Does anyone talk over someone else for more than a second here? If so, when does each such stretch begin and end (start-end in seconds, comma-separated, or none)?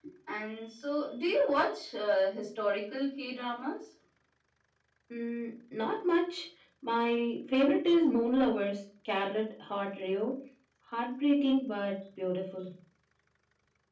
none